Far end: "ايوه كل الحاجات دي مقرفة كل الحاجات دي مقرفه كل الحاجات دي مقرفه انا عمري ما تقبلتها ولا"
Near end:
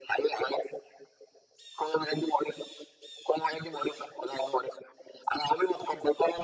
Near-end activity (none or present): none